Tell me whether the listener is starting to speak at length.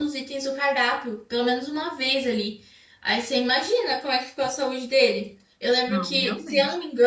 No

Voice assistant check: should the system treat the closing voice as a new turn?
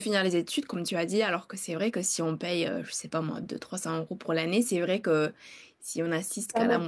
Yes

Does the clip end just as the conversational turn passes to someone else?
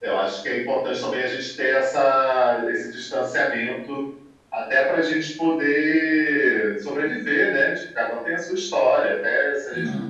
No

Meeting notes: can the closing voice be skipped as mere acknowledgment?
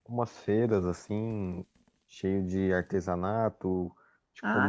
Yes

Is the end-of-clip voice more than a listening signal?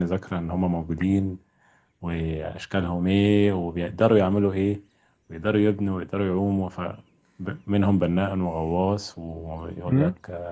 No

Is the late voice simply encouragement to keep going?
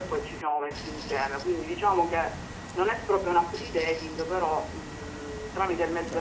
No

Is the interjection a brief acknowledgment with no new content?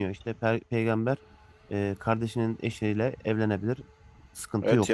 No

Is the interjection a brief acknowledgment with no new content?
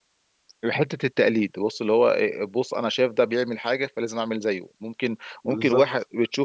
Yes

